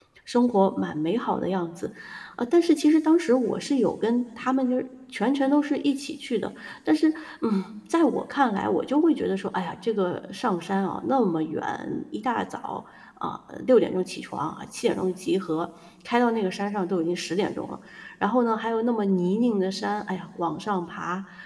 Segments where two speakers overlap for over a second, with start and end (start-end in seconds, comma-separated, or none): none